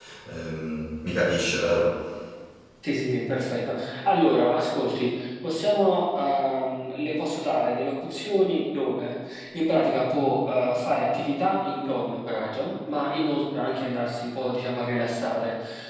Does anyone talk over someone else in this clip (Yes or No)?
No